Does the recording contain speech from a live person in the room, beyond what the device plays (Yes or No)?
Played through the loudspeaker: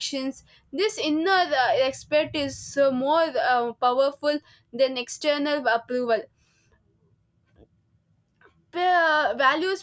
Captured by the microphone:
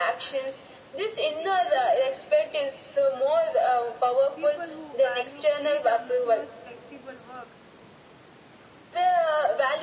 Yes